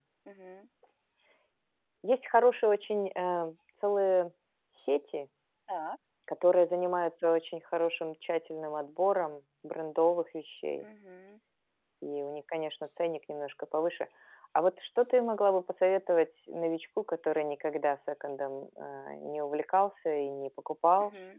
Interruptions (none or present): none